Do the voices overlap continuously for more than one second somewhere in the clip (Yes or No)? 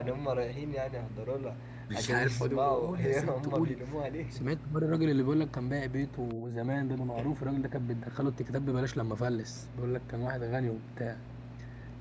Yes